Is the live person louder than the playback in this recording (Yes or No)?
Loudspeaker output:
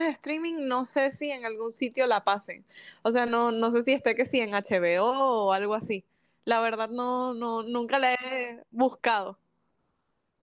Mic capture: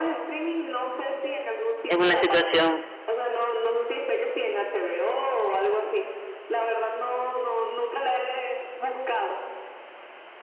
Yes